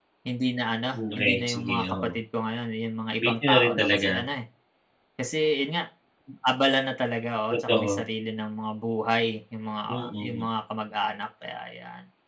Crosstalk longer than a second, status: present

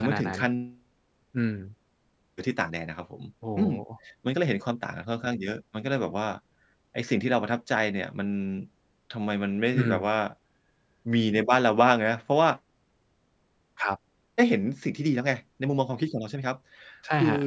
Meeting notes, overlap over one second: none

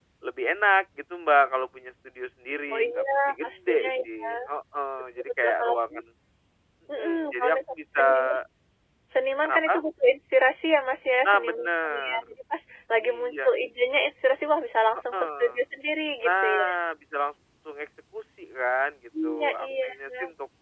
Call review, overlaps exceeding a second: present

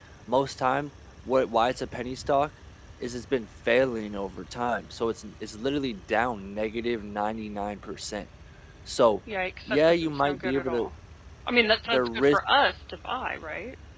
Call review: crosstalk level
present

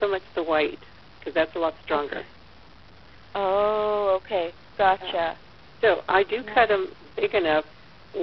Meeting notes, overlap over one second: none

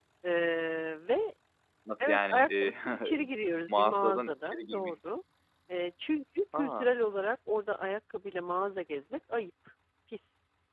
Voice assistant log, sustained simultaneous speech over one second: present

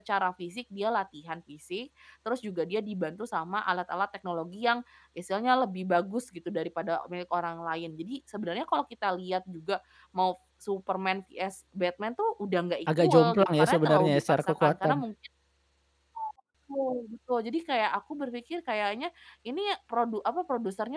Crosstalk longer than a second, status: present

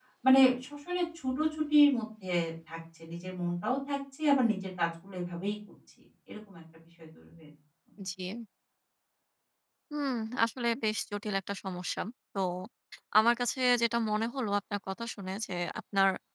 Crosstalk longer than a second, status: none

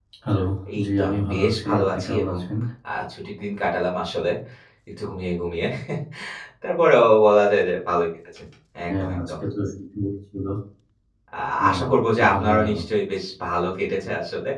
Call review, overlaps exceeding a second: present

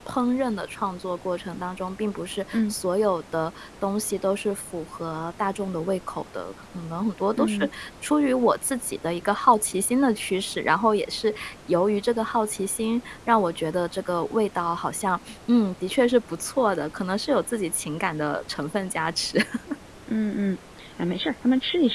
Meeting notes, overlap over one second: none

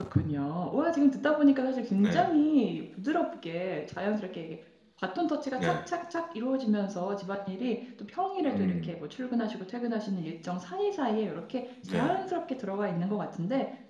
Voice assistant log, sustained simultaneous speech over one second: none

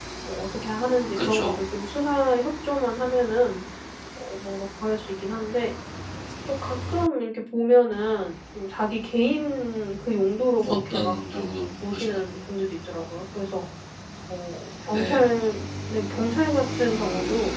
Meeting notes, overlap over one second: none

